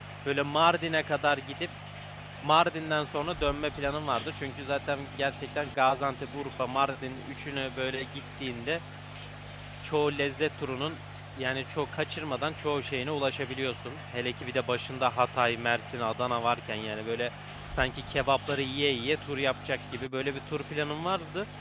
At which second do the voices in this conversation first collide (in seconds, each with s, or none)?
none